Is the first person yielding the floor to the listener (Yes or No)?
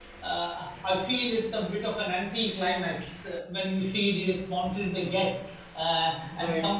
No